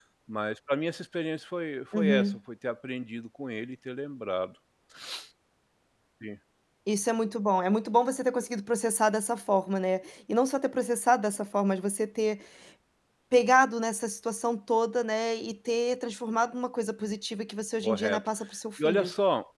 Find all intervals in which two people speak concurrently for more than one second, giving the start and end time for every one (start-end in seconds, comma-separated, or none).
none